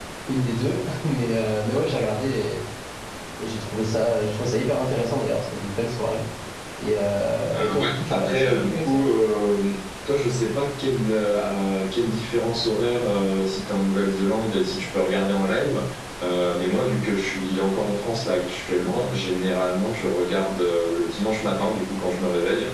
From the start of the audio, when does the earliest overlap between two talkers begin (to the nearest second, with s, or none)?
8 s